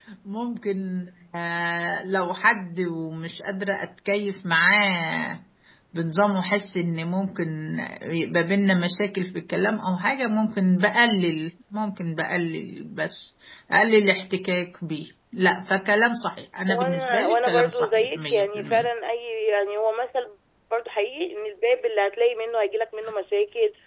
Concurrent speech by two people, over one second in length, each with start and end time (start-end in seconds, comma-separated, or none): 16.7-18.9